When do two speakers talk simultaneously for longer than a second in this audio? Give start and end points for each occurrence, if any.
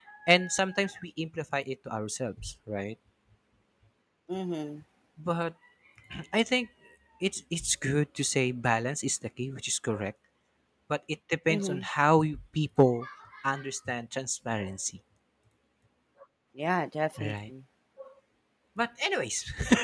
none

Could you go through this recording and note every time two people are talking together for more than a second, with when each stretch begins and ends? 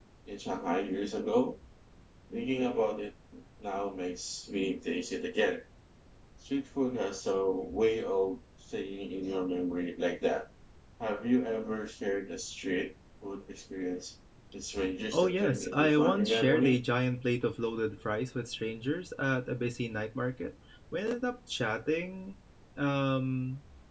15.1-16.8

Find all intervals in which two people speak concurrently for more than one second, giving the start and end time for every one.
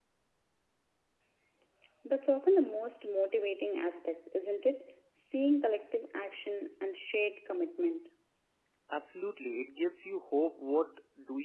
none

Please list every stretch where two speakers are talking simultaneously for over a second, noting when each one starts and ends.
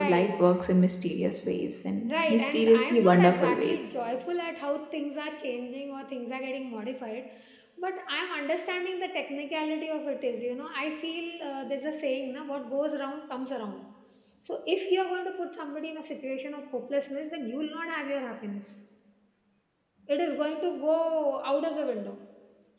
2.1-3.9

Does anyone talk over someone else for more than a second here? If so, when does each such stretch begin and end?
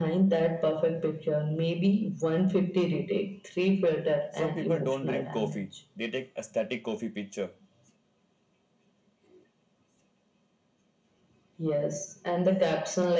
4.4-5.6

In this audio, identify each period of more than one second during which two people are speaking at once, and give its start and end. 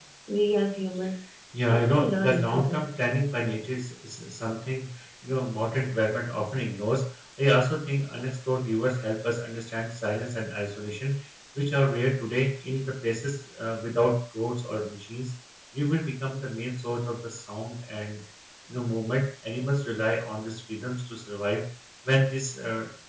1.7-2.9

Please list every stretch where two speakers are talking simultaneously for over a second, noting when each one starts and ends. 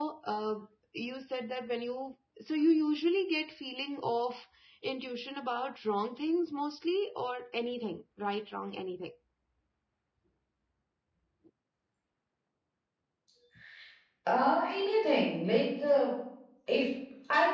none

